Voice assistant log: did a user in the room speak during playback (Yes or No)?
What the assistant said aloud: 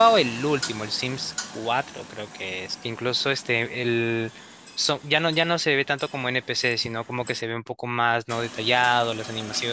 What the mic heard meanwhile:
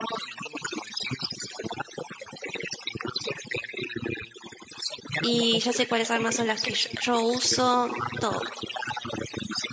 Yes